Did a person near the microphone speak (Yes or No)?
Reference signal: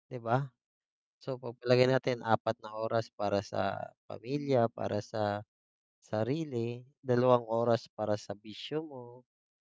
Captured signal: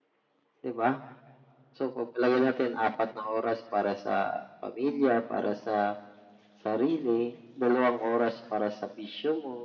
No